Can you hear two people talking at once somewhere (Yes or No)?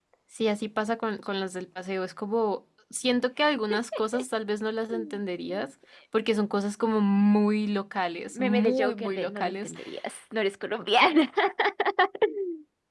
Yes